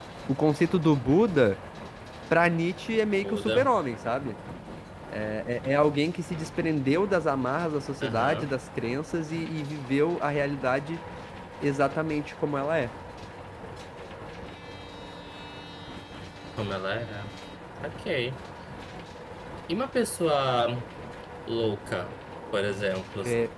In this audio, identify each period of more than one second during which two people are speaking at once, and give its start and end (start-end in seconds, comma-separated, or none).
none